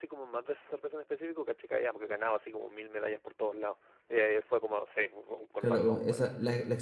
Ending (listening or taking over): taking over